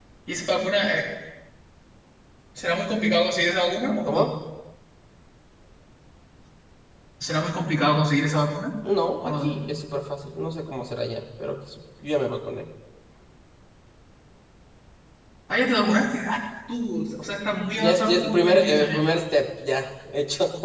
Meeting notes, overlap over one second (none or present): present